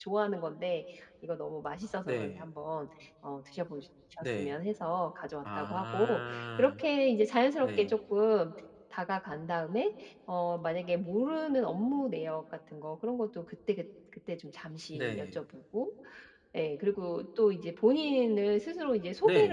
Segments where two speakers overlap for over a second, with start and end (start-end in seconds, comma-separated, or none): 5.6-6.8